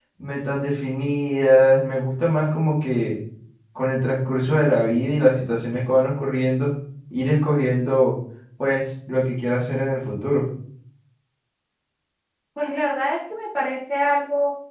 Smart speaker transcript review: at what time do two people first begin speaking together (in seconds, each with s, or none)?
none